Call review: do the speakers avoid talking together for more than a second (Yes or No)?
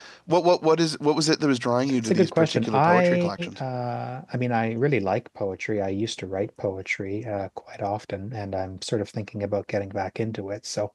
No